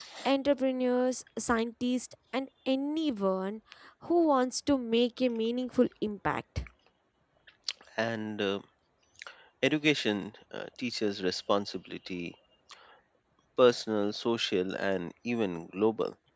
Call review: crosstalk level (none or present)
none